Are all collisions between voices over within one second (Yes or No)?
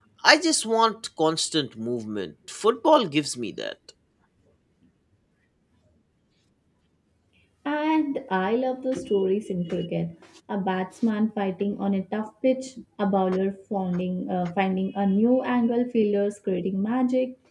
Yes